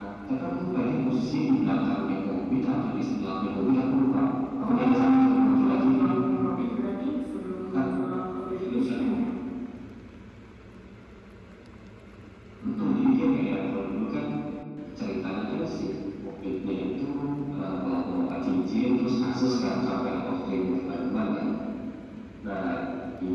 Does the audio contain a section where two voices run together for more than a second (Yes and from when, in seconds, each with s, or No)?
Yes, from 4.6 s